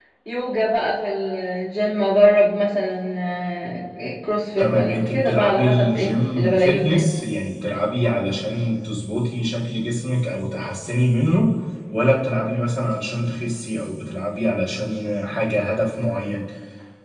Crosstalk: present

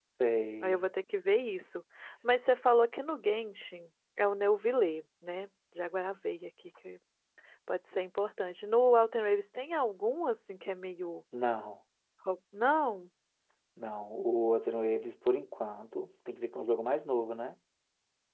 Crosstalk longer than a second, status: none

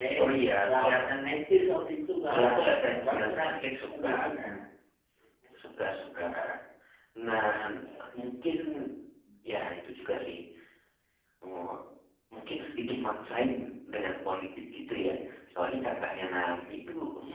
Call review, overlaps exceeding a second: present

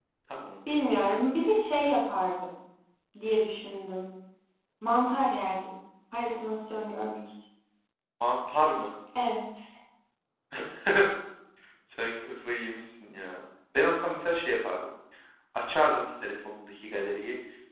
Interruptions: none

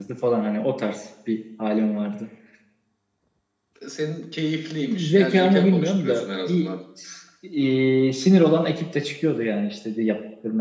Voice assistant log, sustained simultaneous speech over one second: present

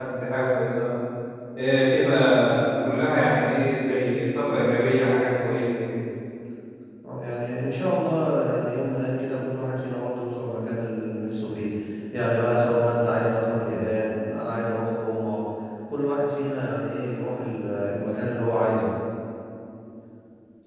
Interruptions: none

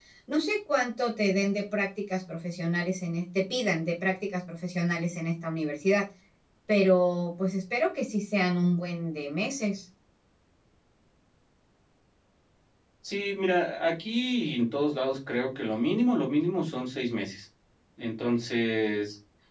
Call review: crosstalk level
none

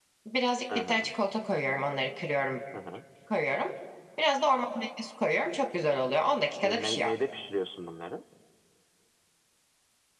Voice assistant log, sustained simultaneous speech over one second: none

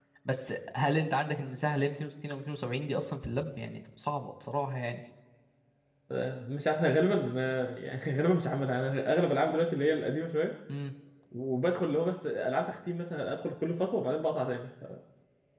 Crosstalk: none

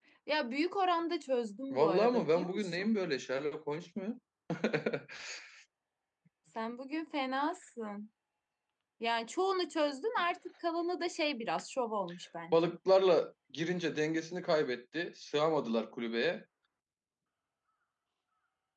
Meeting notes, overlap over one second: present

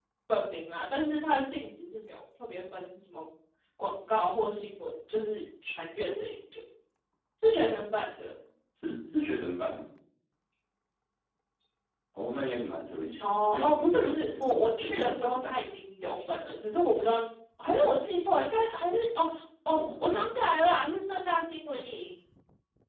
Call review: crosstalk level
present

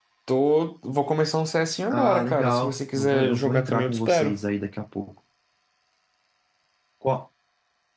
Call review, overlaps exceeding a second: present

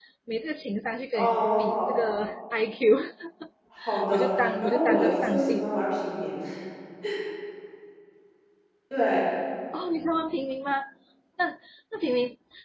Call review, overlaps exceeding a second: present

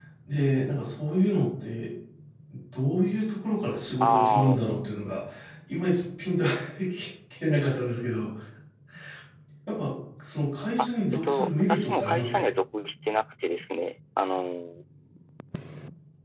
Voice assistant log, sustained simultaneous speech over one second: present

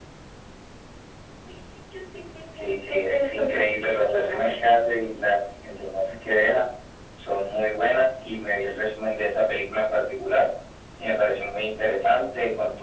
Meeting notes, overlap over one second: present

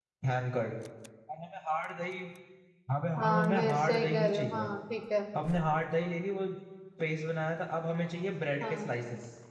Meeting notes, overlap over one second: present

